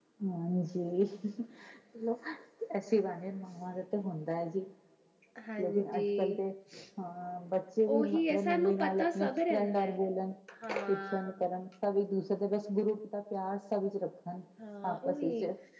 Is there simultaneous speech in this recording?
Yes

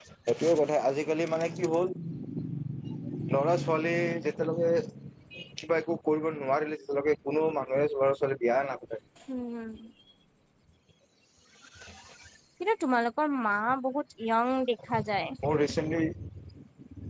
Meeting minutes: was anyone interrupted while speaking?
No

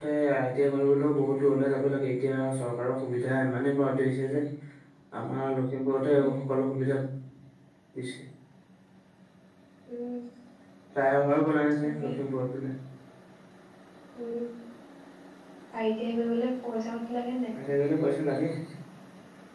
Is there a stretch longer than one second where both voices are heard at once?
No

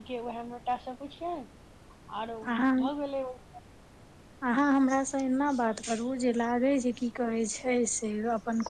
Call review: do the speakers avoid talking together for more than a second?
Yes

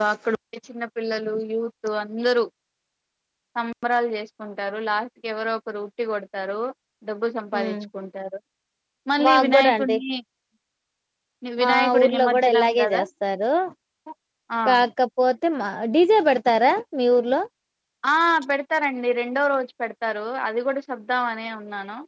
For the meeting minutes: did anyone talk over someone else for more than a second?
Yes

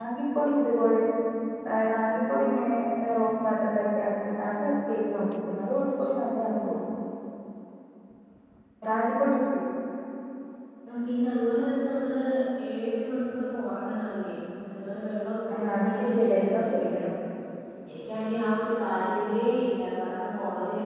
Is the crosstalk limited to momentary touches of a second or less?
No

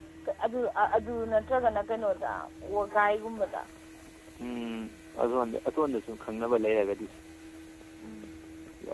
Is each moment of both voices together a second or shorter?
Yes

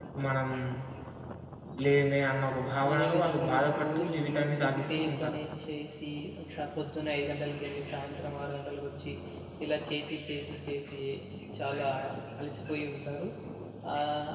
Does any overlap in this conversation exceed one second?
Yes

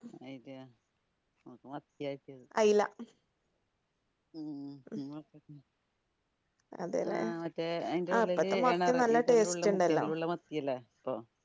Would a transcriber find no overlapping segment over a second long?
No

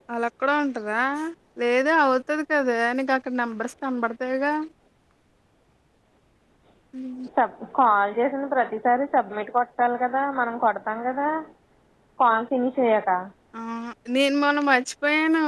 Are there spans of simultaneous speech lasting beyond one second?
No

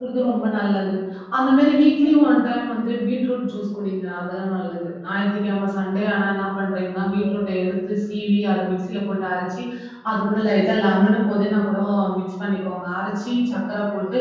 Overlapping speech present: No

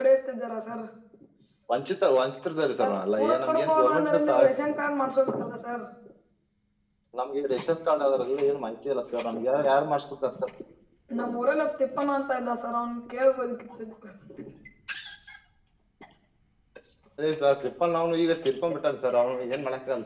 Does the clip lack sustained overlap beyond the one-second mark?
No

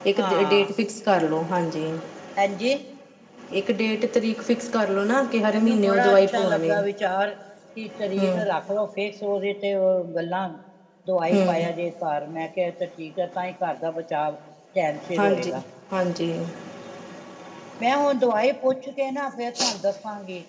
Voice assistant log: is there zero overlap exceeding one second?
No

